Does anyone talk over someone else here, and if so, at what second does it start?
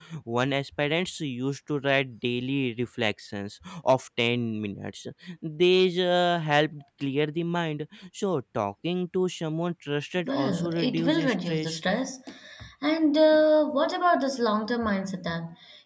10 s

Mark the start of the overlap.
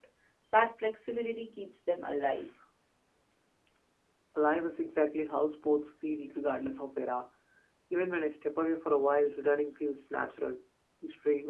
none

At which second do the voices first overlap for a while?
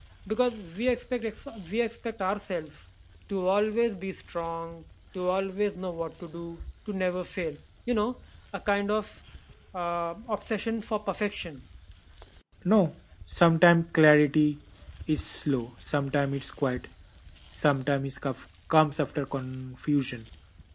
none

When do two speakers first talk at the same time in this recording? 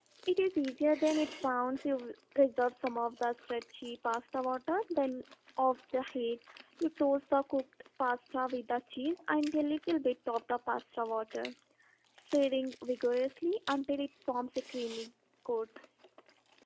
none

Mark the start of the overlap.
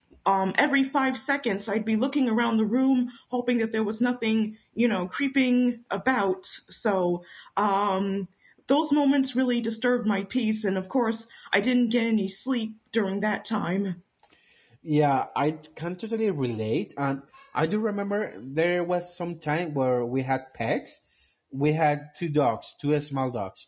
none

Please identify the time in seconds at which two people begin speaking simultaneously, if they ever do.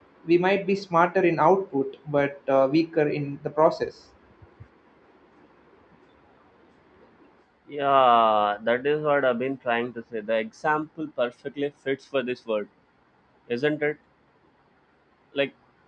none

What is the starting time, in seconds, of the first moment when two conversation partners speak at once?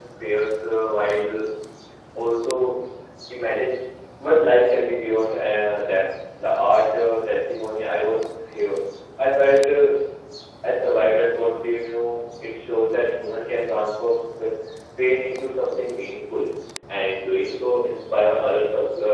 none

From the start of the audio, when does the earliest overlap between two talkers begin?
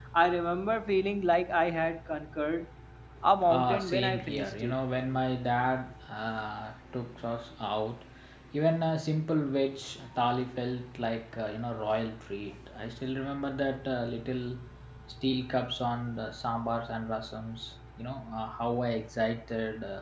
3 s

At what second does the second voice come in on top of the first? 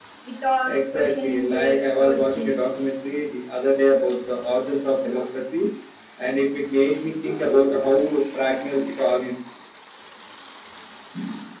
1 s

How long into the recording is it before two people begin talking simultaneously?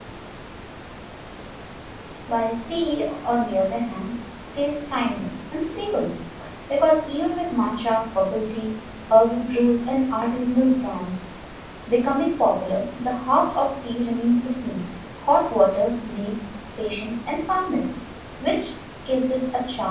none

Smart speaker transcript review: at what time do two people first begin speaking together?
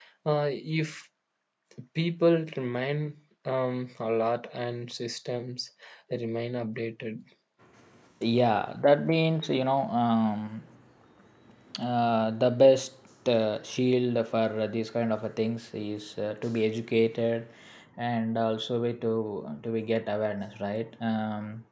none

